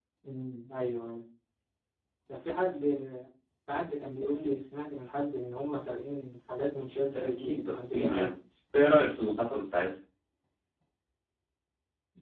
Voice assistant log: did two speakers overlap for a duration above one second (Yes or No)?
Yes